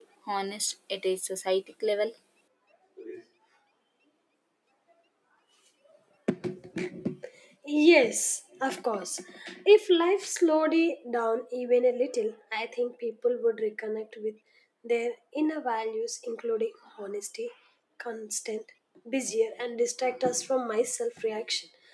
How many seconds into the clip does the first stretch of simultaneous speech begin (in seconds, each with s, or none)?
none